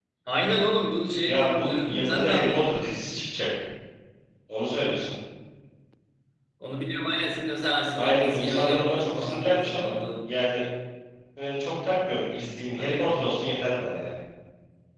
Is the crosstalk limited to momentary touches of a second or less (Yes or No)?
No